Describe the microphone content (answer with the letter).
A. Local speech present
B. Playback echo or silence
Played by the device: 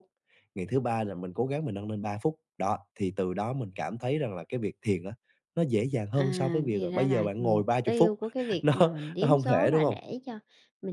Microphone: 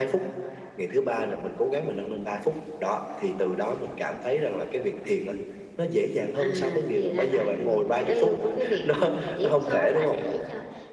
B